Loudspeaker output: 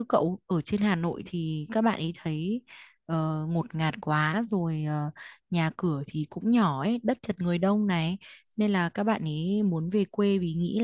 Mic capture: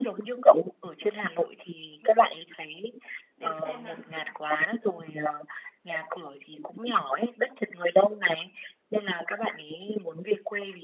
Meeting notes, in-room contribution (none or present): present